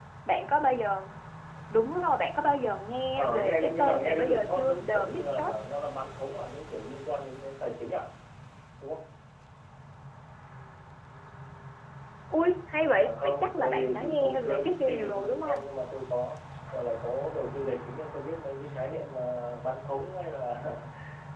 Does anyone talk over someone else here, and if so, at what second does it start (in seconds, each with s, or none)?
3.2 s